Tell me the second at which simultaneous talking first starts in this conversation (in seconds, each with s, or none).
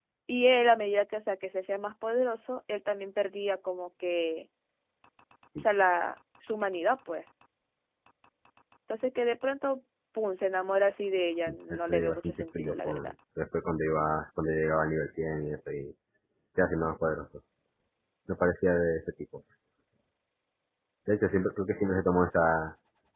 11.5 s